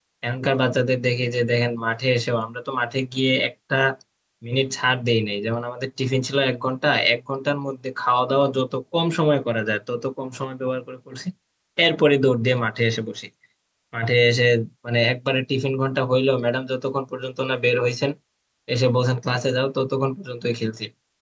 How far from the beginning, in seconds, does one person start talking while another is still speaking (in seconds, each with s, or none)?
none